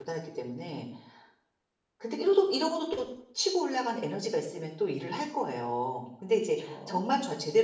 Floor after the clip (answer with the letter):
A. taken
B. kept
B